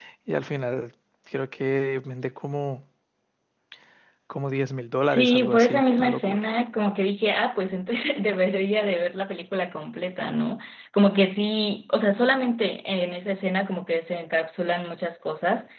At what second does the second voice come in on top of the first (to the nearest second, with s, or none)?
5 s